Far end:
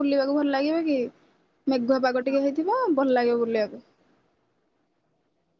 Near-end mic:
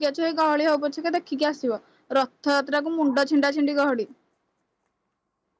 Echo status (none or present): none